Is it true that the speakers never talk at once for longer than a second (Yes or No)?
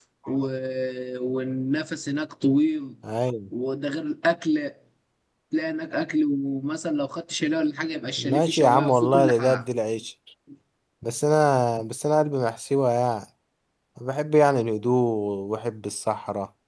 No